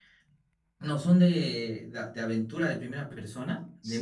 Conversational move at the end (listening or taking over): taking over